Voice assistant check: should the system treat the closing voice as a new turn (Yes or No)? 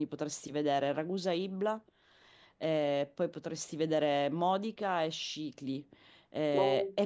No